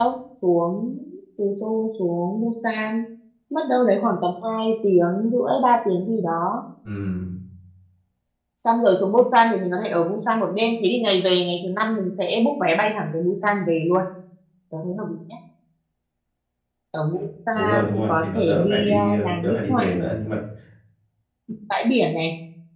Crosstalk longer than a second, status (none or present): present